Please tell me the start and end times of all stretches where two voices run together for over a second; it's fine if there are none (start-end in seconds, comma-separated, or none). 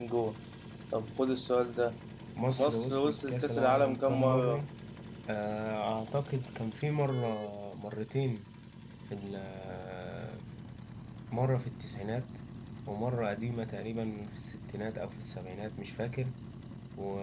2.6-4.6